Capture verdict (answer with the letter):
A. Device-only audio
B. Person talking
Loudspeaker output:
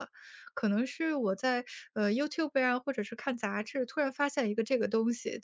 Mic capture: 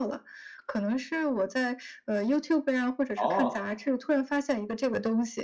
B